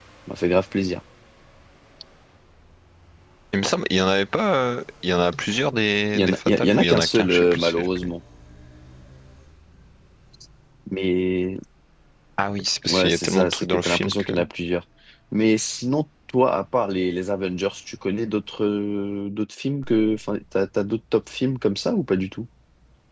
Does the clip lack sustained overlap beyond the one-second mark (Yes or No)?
No